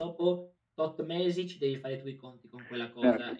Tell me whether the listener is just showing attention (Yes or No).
No